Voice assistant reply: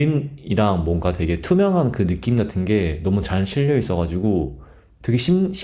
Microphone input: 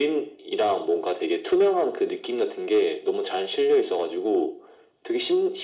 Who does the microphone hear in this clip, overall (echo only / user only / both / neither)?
echo only